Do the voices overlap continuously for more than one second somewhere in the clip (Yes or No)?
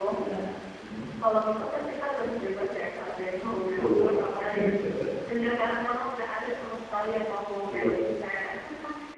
No